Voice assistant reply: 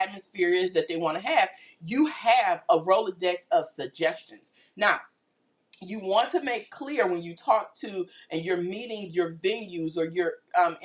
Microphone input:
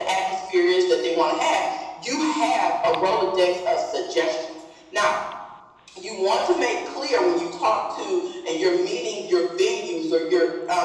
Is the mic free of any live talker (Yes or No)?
Yes